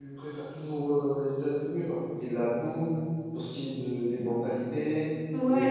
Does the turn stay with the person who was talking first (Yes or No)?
No